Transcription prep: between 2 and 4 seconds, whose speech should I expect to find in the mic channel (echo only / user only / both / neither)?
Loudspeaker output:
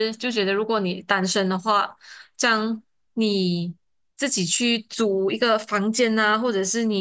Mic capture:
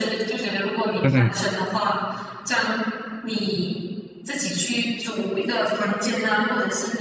echo only